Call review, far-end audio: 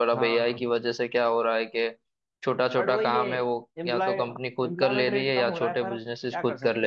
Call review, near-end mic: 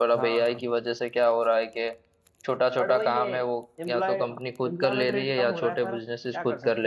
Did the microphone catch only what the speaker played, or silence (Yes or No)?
Yes